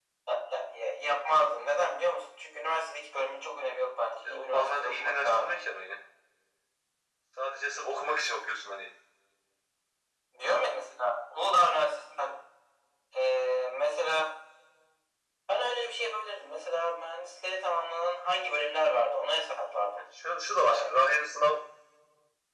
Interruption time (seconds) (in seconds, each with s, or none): 4.2 s